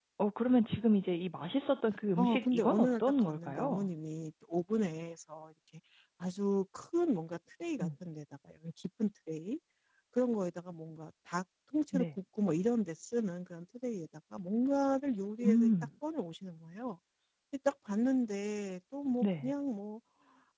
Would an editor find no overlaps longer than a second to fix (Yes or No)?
No